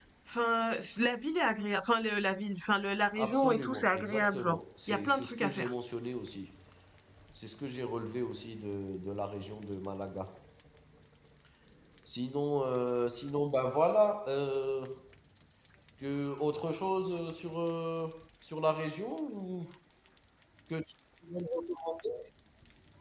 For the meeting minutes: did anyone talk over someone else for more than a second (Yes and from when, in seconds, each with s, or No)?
Yes, from 3.1 s